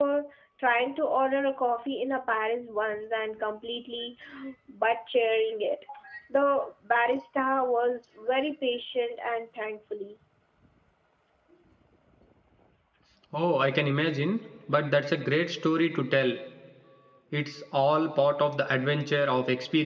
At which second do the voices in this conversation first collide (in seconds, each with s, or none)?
none